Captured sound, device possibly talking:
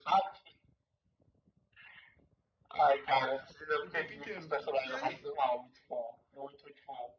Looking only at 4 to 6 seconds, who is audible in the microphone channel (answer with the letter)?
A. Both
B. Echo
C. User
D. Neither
A